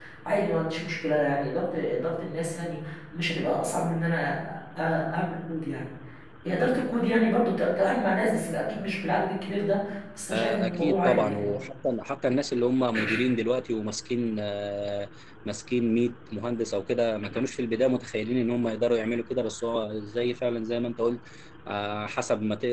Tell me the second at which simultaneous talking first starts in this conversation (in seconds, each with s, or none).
10.3 s